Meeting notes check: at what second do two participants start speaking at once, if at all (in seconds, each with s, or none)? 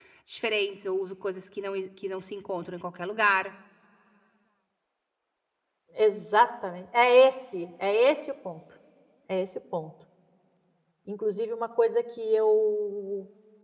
none